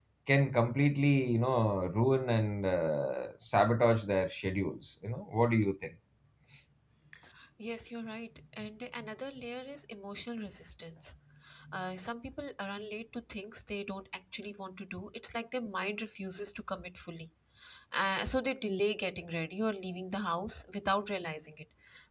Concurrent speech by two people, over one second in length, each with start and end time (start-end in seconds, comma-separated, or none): none